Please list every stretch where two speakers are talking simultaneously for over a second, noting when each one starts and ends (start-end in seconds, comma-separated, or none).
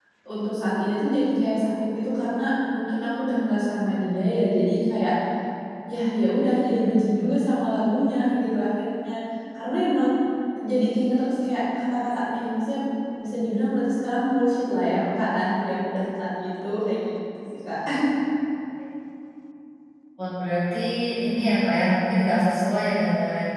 none